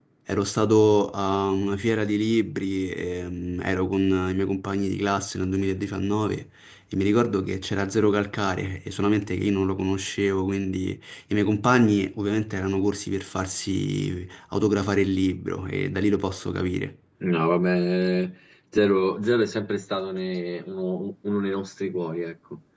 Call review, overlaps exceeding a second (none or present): none